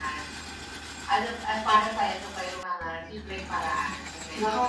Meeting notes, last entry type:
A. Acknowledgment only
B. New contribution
B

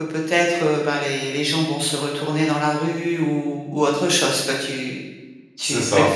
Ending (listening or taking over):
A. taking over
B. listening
B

